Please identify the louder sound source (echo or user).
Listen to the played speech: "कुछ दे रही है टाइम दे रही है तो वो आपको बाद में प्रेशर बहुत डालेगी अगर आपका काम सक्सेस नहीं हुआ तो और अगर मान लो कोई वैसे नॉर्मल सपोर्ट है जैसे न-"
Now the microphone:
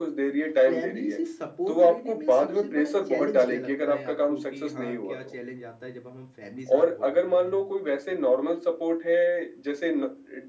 echo